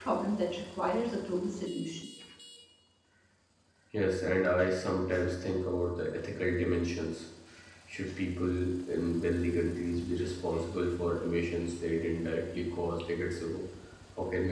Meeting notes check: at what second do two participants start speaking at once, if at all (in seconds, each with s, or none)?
none